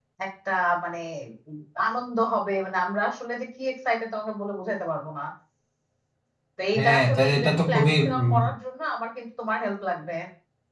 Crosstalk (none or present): present